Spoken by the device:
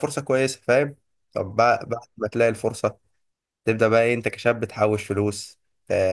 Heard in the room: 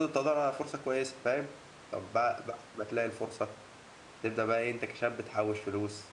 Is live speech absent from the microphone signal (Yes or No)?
Yes